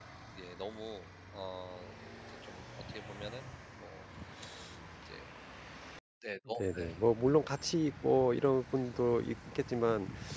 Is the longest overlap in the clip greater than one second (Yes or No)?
No